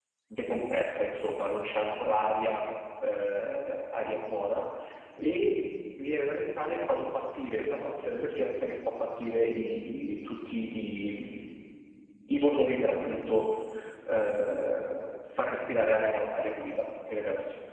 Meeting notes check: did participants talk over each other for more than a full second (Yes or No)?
No